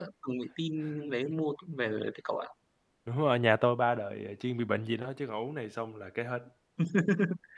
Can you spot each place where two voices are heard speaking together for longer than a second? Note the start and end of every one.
none

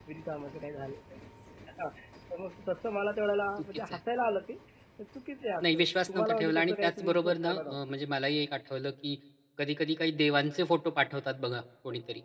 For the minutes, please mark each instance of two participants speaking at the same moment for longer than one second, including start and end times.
5.6-7.8

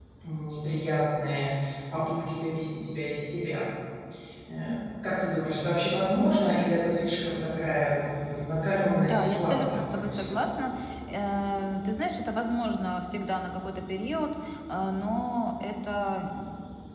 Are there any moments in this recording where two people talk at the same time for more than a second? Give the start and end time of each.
9.0-10.5

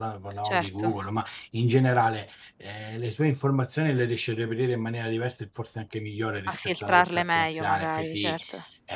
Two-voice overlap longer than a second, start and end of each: 6.5-8.4

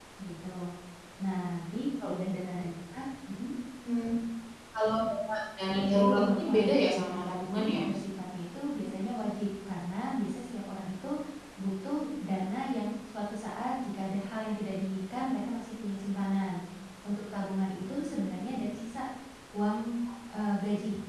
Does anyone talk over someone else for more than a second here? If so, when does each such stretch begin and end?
5.9-7.8

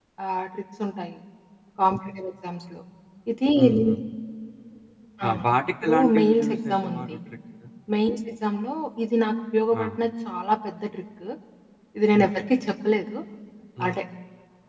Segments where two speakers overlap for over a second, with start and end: 5.8-7.1

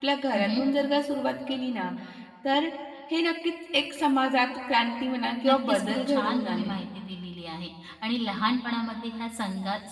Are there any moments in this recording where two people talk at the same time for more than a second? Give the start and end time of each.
5.5-6.7

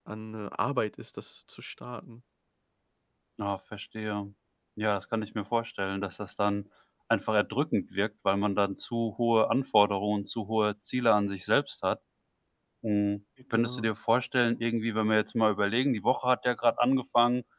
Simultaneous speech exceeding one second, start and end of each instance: none

